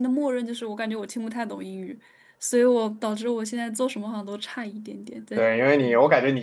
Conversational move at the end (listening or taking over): taking over